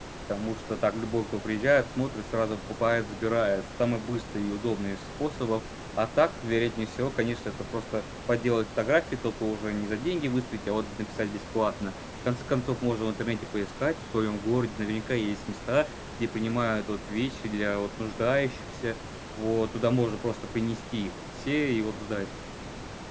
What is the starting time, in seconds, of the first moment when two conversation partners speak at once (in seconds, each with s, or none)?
none